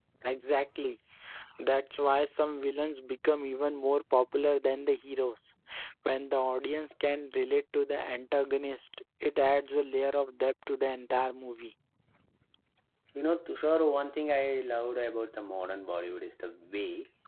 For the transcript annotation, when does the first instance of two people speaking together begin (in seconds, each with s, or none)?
none